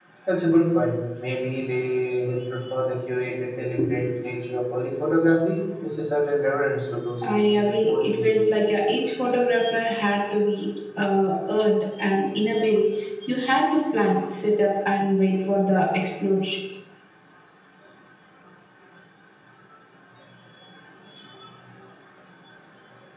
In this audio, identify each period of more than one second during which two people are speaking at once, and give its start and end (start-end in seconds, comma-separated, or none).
7.3-8.6